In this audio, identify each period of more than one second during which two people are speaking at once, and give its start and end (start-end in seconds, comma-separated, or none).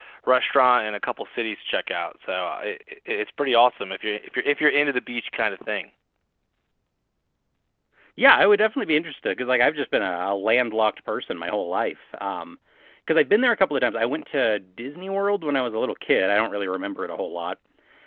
none